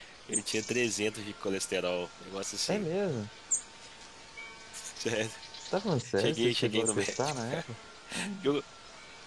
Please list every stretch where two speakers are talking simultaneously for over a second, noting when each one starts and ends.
6.2-7.6

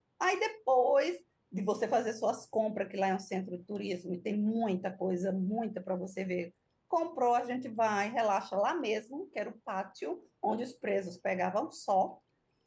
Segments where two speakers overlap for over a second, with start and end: none

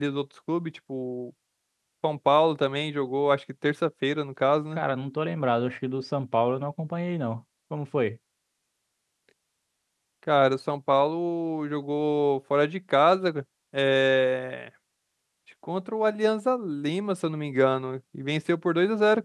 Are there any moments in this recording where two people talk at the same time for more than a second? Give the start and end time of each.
none

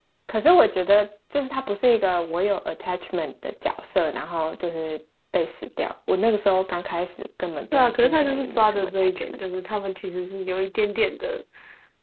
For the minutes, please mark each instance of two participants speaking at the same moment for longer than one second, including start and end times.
7.7-9.2

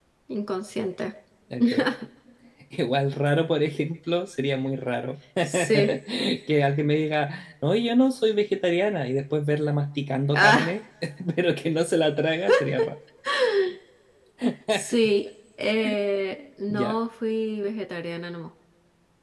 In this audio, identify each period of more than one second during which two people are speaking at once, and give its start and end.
none

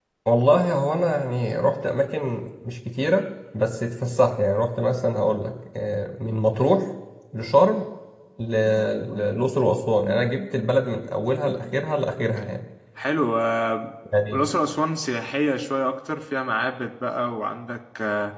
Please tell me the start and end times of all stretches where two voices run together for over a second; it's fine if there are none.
none

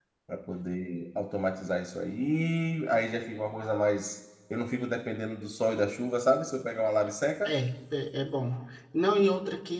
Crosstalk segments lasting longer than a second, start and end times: none

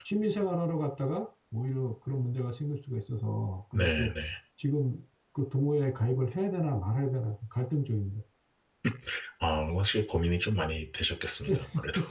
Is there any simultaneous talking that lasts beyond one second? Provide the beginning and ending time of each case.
none

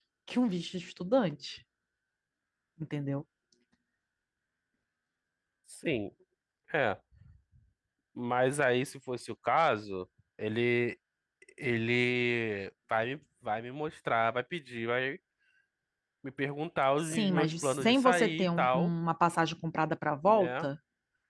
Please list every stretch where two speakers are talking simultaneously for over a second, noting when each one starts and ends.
17.0-18.9

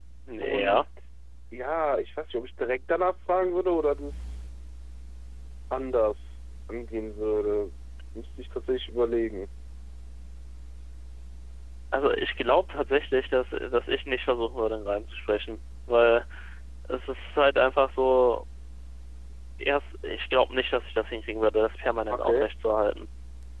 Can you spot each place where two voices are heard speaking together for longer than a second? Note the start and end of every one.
none

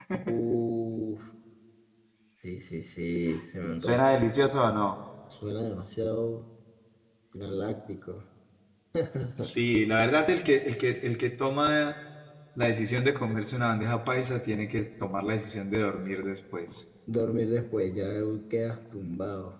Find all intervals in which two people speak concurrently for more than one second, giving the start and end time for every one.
none

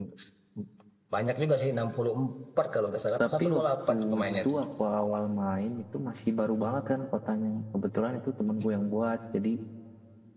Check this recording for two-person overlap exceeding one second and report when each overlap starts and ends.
3.2-4.6

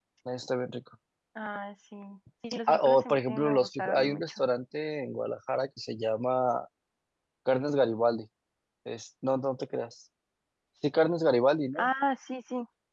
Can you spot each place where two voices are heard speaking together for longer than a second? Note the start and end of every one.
2.7-4.4

